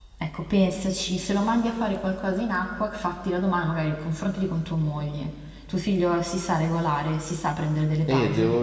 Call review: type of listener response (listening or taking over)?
taking over